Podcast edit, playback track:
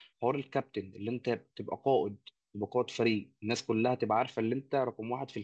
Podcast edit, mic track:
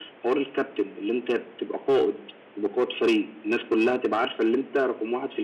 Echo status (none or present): present